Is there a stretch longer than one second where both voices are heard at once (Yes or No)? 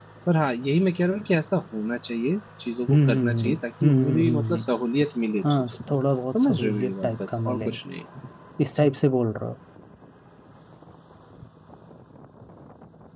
Yes